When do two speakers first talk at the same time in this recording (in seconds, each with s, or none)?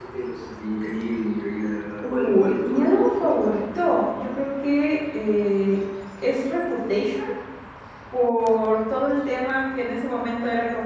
2.0 s